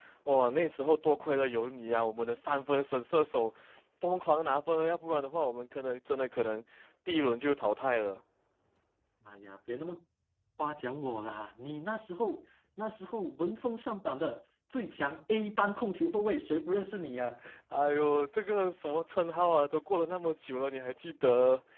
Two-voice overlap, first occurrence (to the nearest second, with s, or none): none